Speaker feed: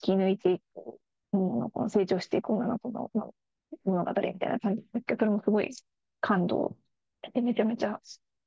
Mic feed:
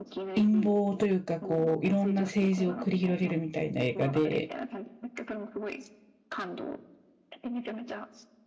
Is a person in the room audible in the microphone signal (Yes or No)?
Yes